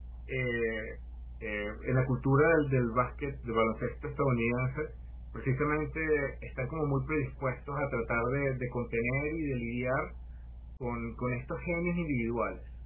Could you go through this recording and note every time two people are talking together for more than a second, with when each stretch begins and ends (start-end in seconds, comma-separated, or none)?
none